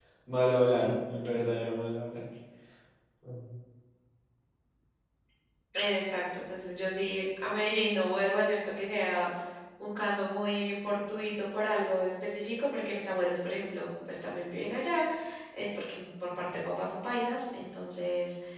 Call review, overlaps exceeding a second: none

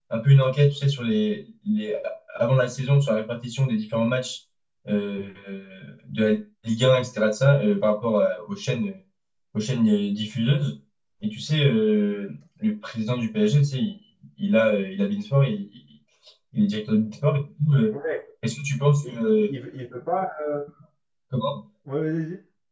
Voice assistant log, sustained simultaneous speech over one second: none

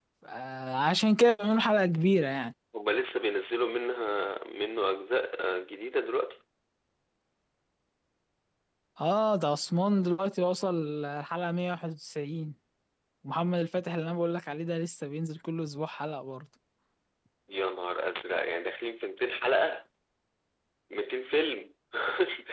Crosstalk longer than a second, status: none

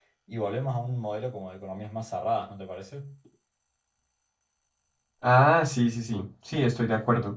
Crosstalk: none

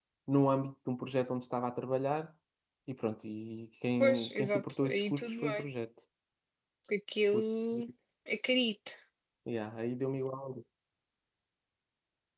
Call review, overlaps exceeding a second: present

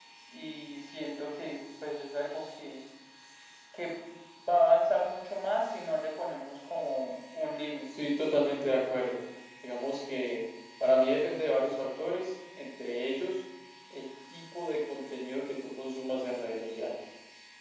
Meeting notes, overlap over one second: none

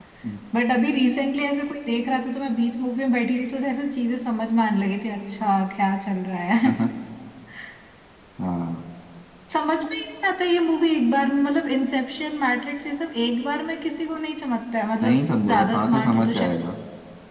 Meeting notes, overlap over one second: present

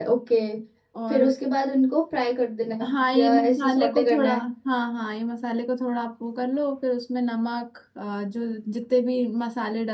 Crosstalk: present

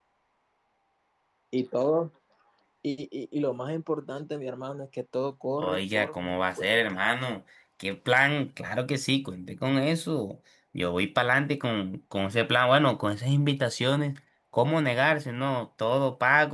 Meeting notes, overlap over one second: present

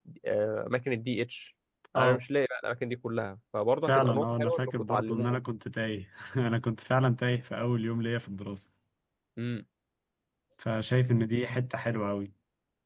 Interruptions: present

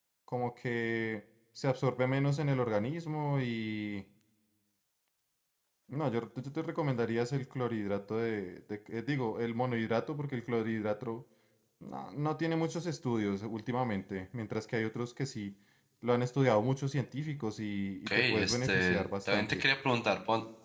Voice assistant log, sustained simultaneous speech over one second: present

